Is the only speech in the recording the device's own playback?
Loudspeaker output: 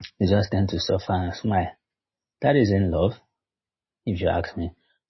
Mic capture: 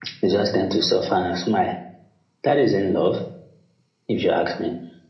Yes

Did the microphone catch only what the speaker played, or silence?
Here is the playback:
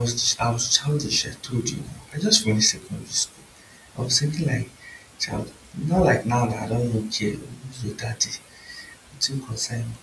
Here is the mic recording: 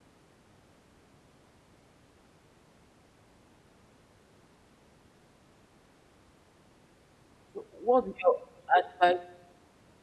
No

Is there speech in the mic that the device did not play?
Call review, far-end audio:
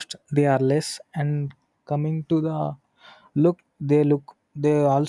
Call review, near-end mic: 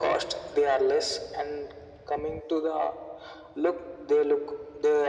No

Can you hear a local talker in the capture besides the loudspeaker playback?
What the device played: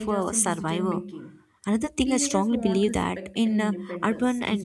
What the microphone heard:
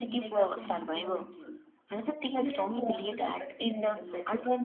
No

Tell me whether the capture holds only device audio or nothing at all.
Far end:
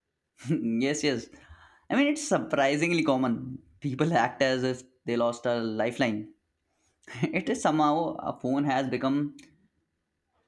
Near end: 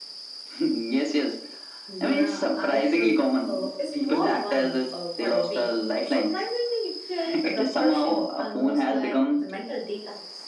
No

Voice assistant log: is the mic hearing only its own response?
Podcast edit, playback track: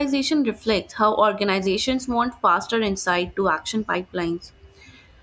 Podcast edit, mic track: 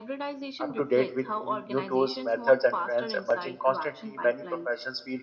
No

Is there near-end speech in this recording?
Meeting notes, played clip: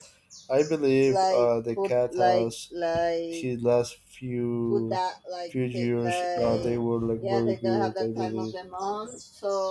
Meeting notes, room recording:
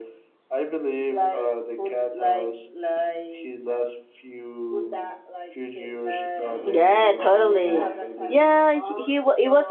Yes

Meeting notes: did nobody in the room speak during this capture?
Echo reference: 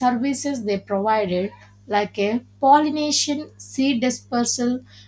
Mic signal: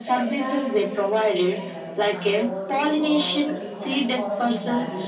No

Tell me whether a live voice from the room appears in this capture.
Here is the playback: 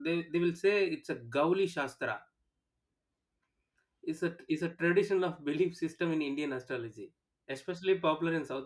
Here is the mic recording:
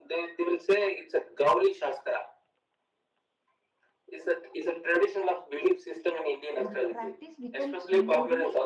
Yes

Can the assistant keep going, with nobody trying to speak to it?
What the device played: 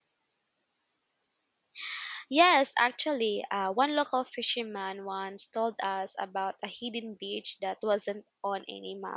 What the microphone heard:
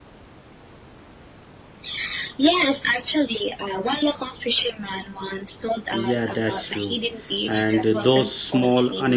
No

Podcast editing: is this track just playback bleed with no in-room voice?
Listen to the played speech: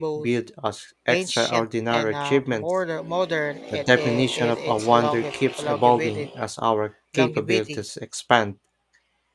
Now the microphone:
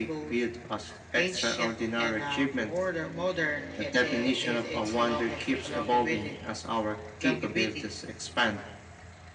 Yes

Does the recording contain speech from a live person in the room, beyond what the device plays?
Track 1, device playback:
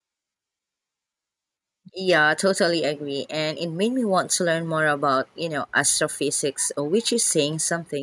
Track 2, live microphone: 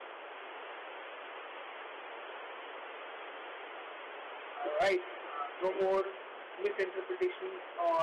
Yes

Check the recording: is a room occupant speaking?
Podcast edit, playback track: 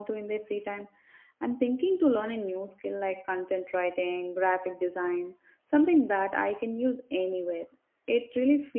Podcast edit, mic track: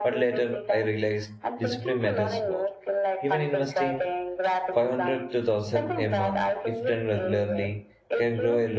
Yes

